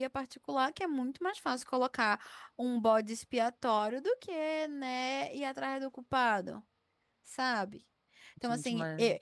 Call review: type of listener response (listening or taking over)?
listening